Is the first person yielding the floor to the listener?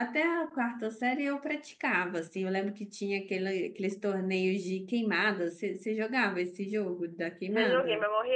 Yes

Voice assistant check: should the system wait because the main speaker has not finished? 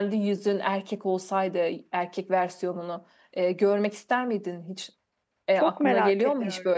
No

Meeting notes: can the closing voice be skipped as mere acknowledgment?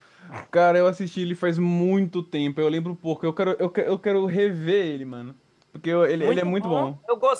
No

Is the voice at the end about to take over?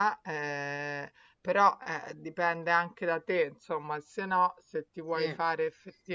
No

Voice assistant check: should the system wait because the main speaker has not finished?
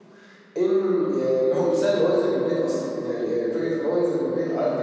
Yes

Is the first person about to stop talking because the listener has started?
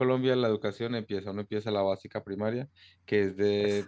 No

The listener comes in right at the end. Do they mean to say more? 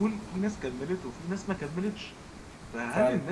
No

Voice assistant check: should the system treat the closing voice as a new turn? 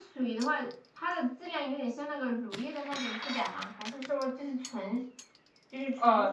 Yes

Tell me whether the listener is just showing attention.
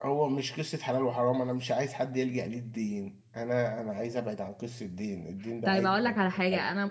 No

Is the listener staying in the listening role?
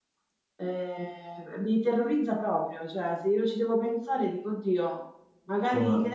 Yes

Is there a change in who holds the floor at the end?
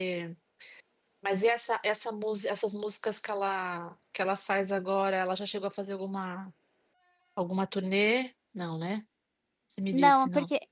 Yes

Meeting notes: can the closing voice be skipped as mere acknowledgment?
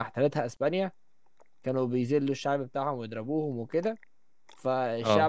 Yes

